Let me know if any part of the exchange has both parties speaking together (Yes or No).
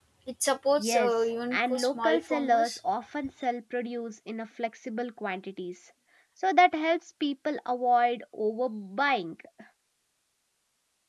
Yes